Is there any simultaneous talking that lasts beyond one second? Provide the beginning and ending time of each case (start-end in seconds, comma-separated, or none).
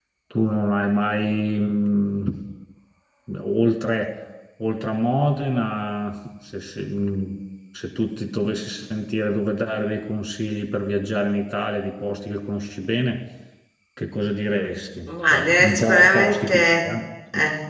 15.1-16.9